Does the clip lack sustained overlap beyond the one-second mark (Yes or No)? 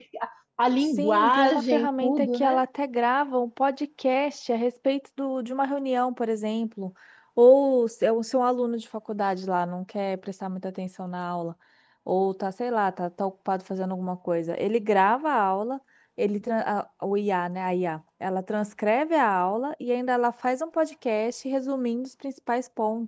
No